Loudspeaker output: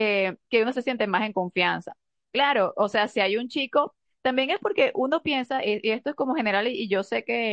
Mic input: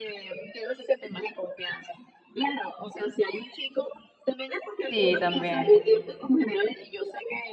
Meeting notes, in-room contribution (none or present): present